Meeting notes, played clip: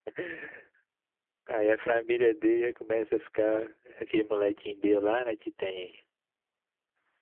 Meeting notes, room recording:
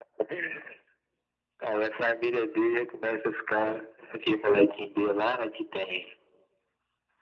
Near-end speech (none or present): none